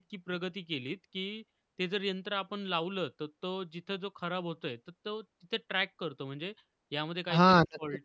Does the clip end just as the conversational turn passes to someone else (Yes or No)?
Yes